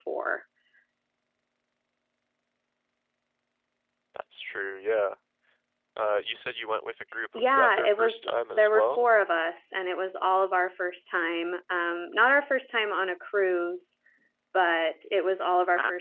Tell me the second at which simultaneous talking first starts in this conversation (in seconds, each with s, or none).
7.3 s